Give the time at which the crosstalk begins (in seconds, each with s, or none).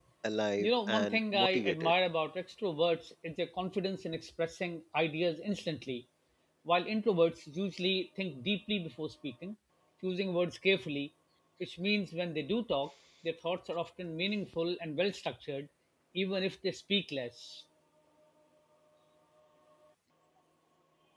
0.6 s